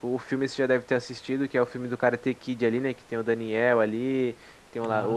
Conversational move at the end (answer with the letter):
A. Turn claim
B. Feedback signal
B